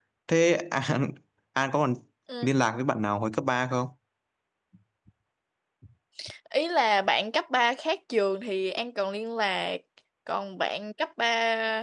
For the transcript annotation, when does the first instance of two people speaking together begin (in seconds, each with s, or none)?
none